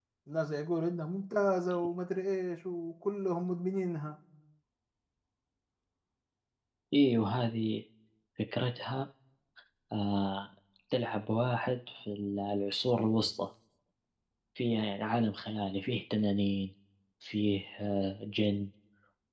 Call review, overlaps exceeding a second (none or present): none